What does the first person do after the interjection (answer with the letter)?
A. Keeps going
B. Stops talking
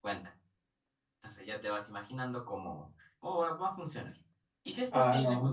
A